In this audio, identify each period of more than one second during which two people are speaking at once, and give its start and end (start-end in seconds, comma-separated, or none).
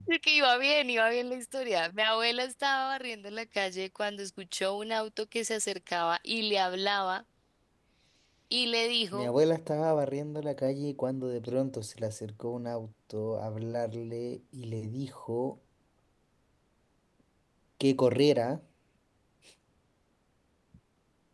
none